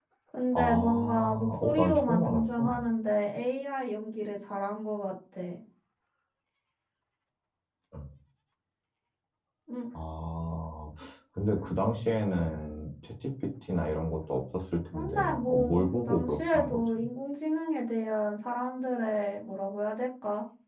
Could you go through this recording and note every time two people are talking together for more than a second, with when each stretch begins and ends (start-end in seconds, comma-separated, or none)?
0.5-2.8, 14.9-16.8